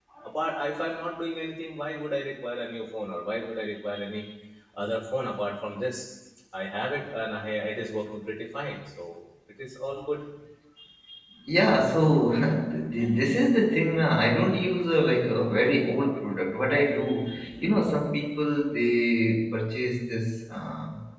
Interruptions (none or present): none